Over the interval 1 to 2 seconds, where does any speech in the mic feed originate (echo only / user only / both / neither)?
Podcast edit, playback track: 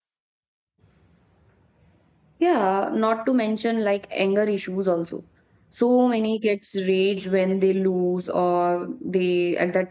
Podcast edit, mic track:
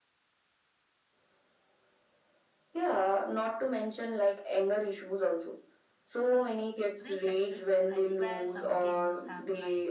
neither